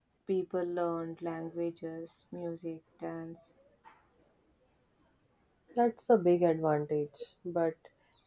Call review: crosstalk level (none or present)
none